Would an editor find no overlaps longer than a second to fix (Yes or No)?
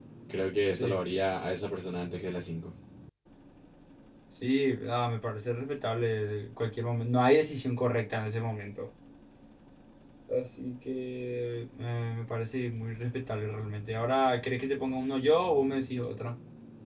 Yes